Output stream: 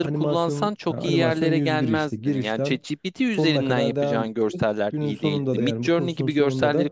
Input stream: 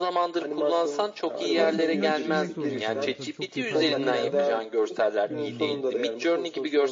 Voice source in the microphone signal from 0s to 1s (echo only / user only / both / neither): echo only